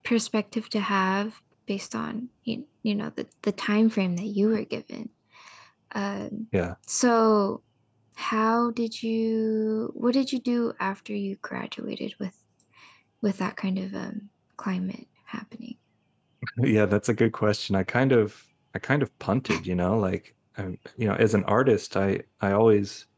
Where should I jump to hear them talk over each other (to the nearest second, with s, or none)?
none